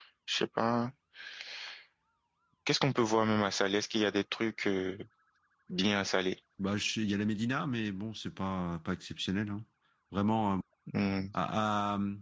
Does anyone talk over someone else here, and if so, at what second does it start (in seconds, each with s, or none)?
none